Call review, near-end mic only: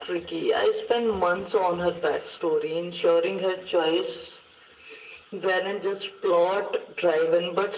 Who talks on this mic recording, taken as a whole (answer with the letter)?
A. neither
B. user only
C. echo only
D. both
C